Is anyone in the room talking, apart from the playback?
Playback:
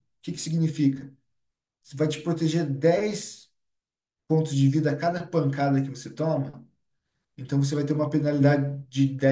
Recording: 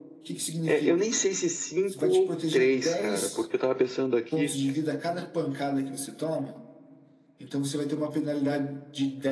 Yes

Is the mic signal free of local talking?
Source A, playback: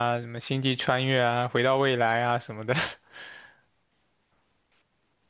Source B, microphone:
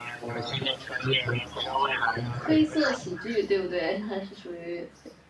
No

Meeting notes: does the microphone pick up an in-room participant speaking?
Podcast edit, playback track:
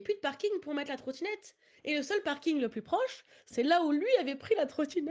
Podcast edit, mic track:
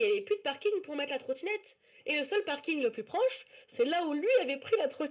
No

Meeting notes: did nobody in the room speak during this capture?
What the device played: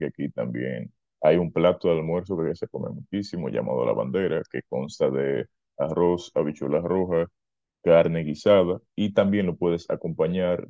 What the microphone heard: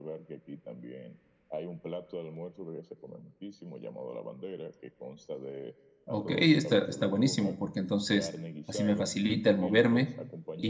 No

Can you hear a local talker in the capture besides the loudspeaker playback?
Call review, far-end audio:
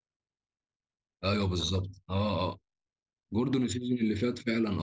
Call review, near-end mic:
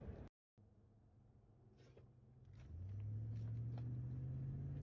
No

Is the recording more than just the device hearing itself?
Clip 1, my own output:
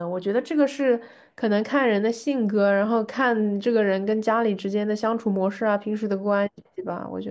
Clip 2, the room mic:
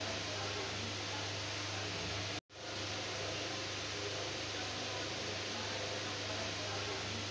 No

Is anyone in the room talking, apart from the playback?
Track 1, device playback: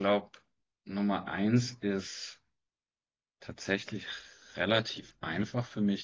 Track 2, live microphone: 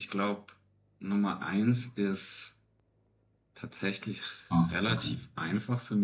Yes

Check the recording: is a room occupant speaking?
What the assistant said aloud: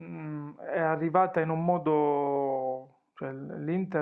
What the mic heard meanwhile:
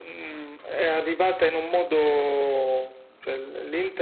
No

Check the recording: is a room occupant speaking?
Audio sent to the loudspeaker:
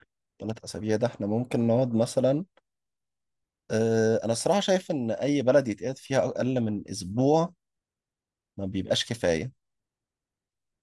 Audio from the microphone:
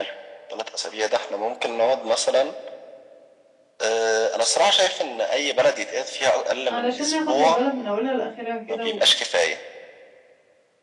Yes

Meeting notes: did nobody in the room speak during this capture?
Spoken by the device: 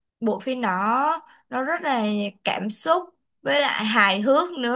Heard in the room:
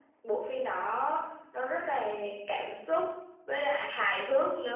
Yes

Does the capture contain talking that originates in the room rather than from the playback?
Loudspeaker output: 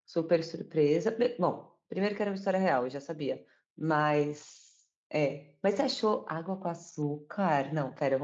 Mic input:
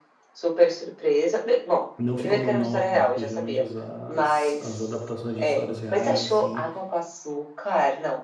Yes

